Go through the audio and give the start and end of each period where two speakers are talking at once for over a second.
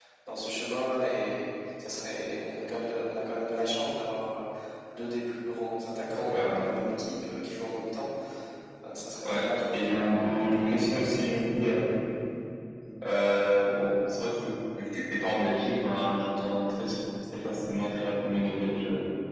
9.2-11.2

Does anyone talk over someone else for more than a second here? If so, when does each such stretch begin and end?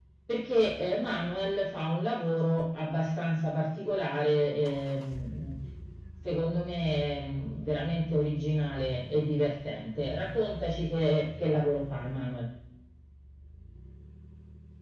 none

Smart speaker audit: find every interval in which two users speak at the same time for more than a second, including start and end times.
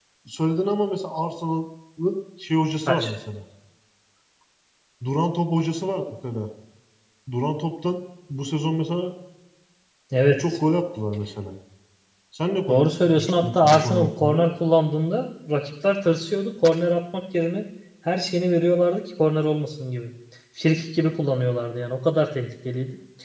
12.7-14.4

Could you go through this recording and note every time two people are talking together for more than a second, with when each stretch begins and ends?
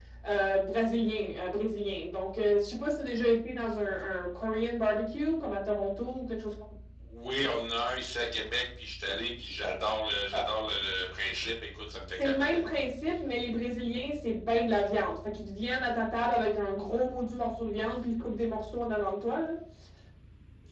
none

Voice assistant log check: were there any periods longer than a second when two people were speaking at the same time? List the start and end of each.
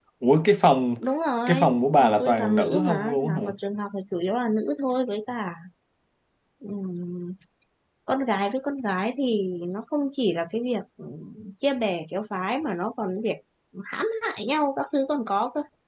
2.0-3.4

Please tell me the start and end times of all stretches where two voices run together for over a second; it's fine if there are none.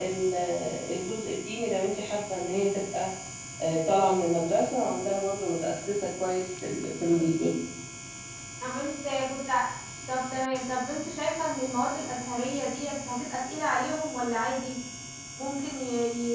none

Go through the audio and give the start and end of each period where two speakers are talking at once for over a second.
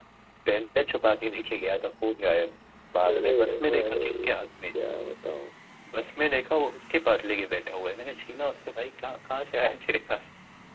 3.1-4.3

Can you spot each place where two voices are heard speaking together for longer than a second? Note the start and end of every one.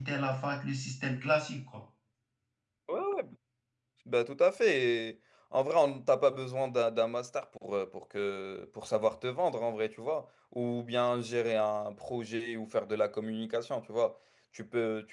none

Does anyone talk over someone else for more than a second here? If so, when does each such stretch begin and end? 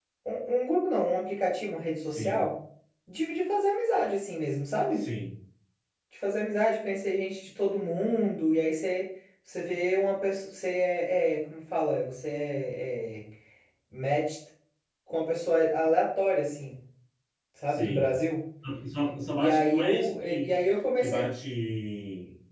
19.3-20.5

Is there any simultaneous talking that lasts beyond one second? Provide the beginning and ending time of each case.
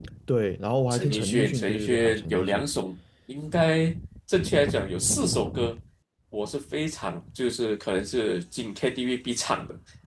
0.9-2.7

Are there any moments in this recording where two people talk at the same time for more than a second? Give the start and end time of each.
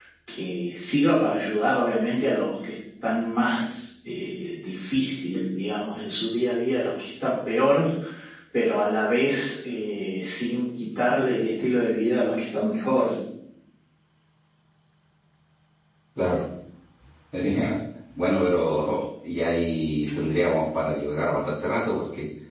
none

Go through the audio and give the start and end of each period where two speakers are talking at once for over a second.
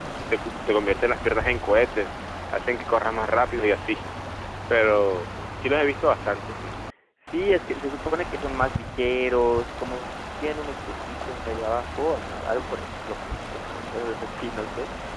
none

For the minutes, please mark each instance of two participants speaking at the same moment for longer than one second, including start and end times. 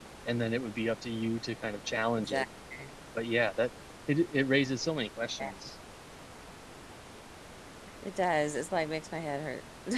none

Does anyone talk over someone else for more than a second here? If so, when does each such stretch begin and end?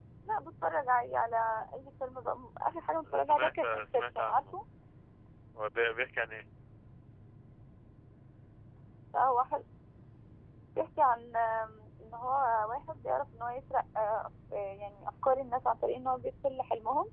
3.1-4.4

